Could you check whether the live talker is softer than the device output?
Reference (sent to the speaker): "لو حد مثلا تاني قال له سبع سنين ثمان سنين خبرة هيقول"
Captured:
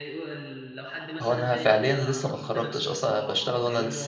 No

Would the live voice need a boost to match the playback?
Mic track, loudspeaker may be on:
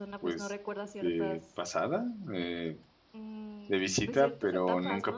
No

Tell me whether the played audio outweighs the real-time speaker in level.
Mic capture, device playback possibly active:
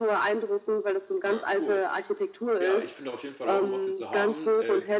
Yes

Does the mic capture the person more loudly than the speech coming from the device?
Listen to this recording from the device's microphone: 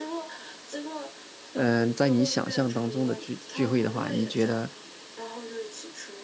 Yes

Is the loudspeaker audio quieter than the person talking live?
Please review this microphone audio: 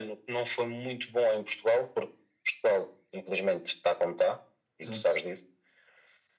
No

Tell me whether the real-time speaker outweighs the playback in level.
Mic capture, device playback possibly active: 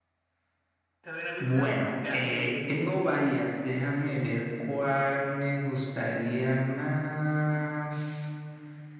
No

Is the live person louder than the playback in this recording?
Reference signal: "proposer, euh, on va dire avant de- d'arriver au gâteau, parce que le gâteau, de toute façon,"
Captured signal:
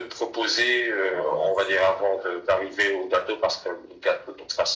No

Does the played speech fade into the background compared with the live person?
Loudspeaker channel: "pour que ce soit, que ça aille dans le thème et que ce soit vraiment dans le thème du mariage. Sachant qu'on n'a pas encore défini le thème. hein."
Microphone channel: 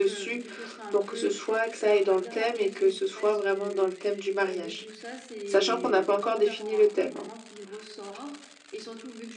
No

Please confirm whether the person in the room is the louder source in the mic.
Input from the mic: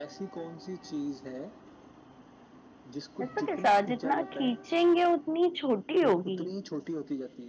Yes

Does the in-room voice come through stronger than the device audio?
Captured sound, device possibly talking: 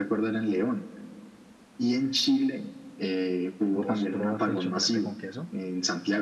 No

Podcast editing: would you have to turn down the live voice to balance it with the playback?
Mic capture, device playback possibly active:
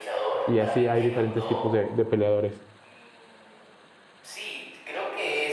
Yes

